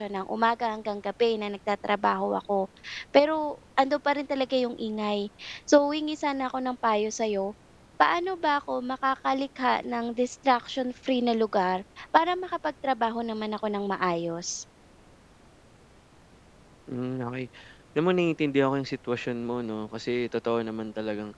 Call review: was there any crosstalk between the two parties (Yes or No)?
No